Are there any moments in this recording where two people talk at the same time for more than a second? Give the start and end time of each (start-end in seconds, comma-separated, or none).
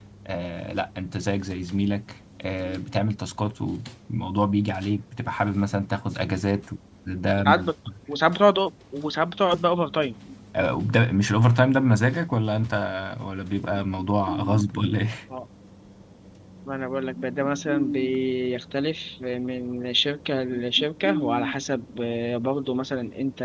none